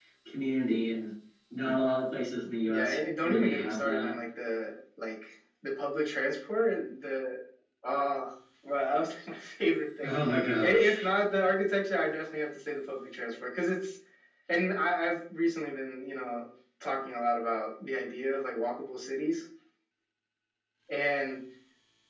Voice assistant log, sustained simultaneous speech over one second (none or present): present